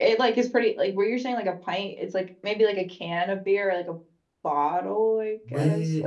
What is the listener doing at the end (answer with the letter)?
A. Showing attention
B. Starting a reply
B